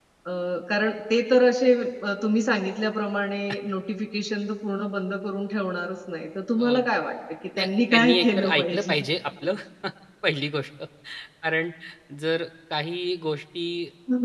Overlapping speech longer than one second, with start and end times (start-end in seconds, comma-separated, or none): 7.6-9.0